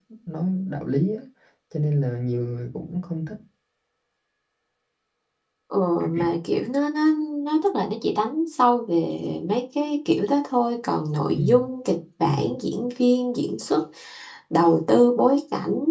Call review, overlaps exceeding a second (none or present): none